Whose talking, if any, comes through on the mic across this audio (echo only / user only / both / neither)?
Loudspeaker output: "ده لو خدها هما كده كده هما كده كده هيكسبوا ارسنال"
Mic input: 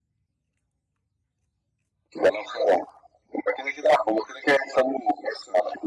echo only